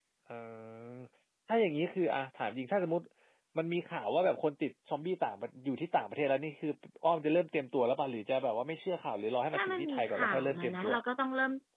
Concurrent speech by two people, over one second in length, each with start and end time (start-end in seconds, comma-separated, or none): 9.5-10.9